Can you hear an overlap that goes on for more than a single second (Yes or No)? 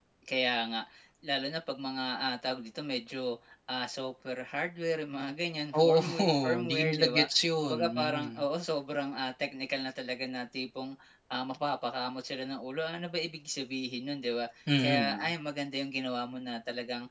Yes